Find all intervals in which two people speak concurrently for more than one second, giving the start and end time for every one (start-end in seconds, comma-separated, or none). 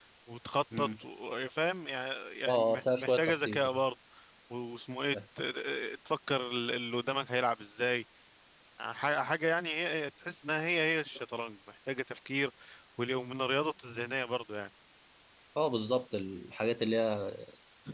2.5-3.8